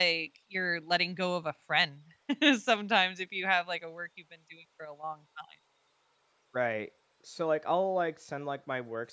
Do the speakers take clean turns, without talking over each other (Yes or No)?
Yes